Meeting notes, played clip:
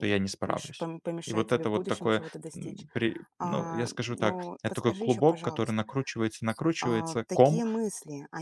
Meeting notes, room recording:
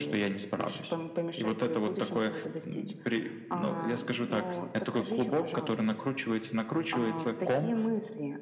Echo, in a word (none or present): present